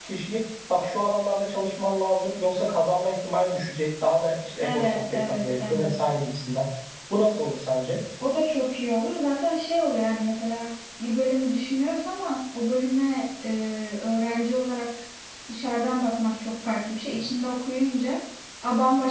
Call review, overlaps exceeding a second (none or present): present